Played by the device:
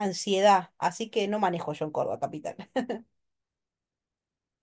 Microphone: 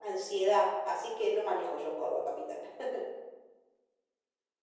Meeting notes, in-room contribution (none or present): none